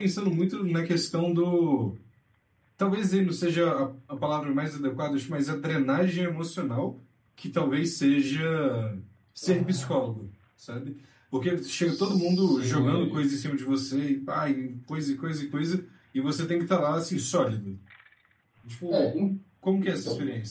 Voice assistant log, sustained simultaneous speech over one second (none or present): present